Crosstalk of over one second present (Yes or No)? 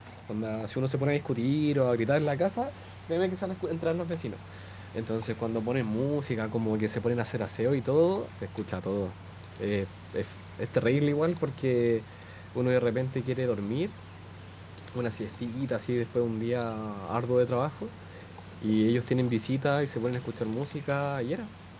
No